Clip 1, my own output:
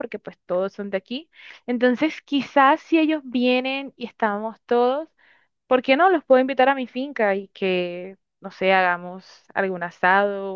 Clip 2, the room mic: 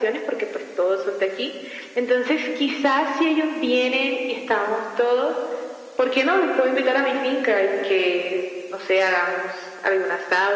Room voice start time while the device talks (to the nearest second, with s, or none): none